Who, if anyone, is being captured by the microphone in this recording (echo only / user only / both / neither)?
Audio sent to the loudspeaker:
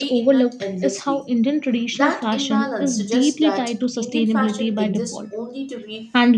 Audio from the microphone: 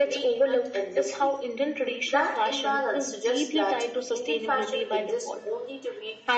echo only